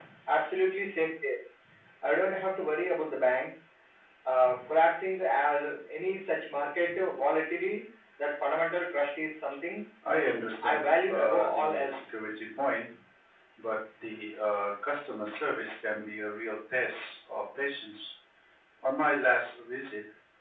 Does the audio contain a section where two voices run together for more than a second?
Yes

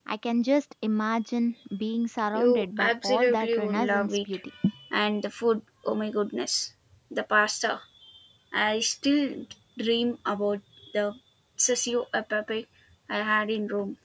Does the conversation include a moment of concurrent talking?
Yes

